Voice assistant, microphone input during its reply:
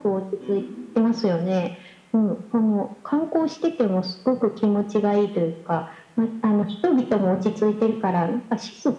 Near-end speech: present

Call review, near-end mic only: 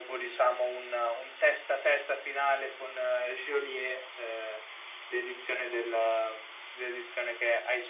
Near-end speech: none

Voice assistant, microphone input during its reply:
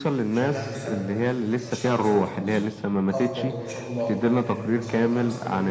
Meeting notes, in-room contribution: present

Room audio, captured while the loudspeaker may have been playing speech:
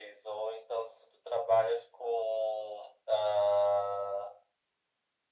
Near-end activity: none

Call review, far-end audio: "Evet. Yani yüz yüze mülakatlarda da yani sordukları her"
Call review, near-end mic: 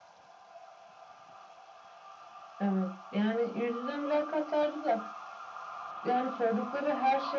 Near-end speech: none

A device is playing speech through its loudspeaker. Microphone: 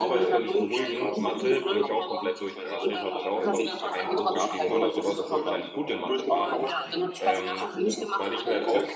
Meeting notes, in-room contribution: present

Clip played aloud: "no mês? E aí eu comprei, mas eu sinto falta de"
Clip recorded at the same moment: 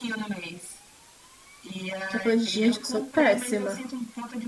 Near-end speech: present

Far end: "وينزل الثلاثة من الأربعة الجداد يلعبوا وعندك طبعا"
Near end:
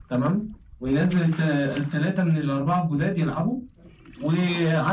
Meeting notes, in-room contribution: none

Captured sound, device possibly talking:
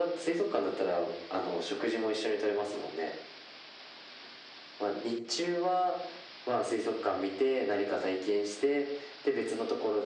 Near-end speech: none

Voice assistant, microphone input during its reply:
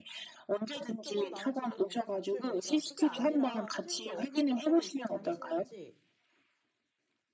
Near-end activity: present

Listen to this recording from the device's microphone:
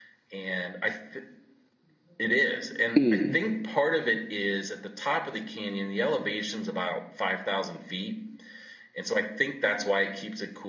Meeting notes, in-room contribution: present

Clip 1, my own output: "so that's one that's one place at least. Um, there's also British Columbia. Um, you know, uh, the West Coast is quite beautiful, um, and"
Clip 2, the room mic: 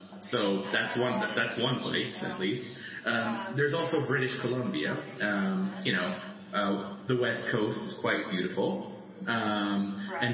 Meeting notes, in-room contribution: present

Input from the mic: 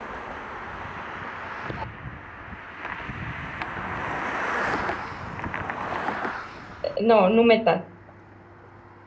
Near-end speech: present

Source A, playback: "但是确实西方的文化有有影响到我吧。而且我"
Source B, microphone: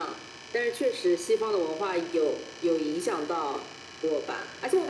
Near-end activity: none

